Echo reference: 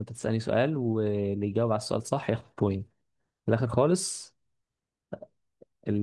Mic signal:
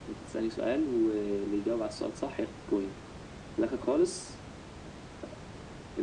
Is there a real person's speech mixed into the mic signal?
No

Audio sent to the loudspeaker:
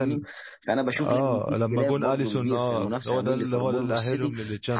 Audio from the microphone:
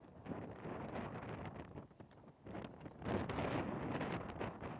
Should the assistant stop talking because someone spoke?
No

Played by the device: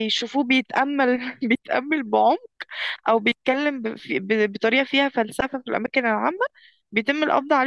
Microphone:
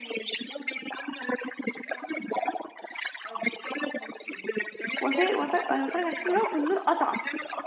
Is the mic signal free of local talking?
No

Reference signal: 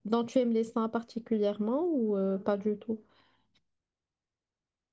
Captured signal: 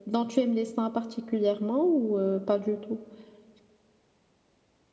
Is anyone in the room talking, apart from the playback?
No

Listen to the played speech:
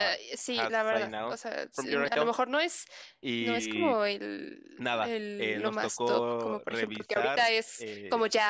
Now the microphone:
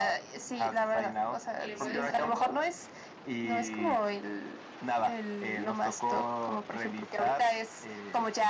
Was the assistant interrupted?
Yes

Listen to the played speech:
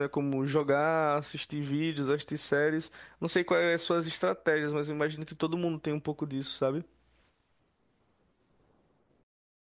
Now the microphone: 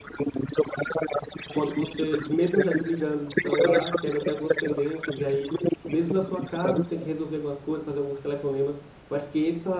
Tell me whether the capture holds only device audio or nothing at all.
No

